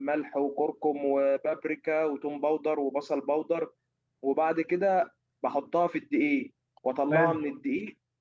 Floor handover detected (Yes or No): No